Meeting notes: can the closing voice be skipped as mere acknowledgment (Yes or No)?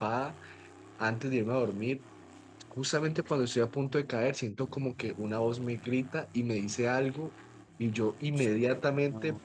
Yes